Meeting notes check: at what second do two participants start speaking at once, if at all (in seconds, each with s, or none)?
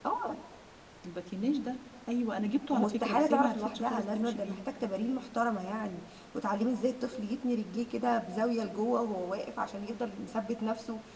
2.7 s